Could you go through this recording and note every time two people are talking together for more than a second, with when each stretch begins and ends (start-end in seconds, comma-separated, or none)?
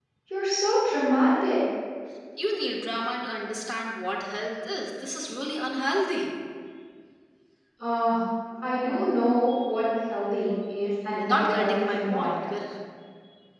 11.1-12.4